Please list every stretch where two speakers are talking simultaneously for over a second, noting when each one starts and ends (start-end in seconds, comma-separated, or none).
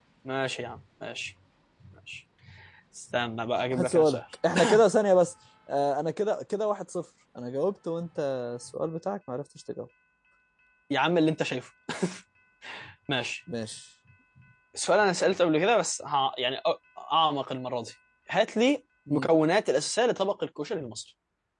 none